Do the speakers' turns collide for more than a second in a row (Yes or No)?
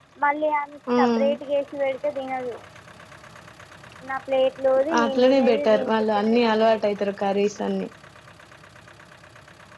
Yes